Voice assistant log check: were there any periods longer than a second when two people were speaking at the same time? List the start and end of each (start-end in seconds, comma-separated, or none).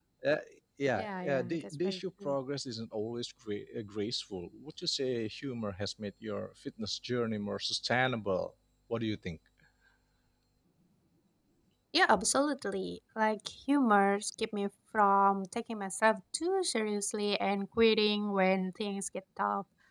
0.9-2.4